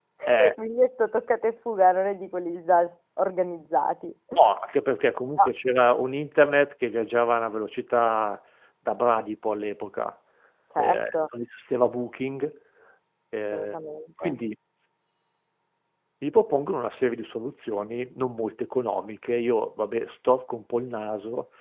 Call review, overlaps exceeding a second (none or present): none